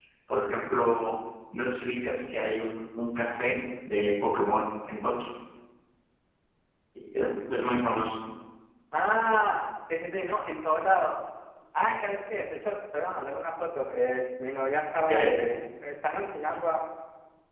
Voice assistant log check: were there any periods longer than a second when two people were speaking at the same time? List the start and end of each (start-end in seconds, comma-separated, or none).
none